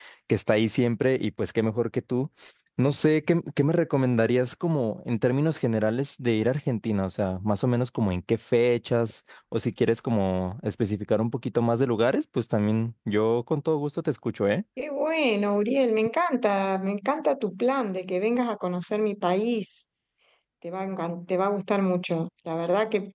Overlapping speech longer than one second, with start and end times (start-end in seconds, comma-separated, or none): none